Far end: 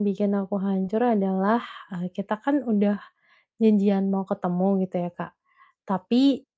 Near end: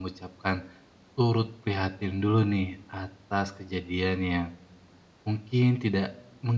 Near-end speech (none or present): present